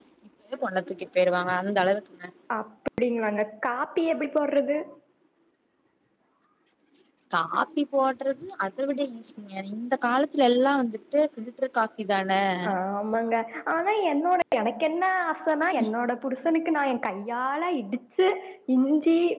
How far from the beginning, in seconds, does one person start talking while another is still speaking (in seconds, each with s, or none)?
none